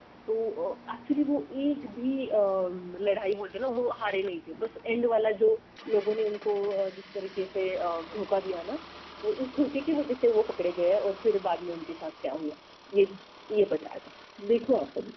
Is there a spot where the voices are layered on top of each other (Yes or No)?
No